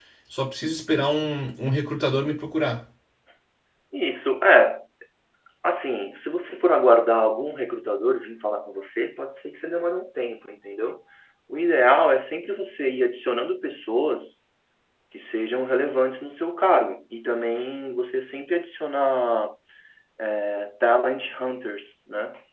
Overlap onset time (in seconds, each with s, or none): none